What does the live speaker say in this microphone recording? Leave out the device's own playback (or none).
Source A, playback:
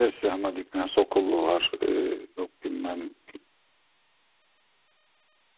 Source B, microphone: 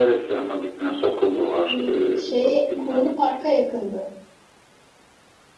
Hani şeye Kuğulu Park'a yakındı.